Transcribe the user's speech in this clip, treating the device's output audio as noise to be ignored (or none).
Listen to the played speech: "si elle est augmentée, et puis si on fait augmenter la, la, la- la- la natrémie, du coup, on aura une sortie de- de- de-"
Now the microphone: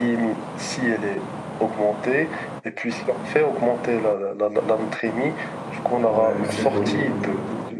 Ouais, c'est cool.